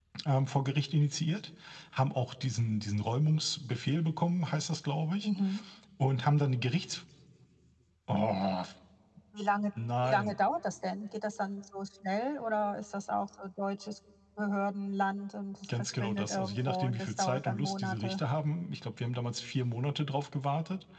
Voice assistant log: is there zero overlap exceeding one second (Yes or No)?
No